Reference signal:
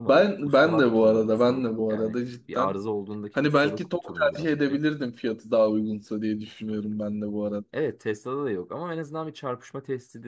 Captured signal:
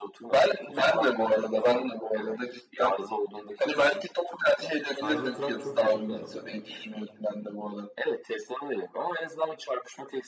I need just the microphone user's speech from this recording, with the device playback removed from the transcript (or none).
Cybertruck çok gıcık bir araba ya.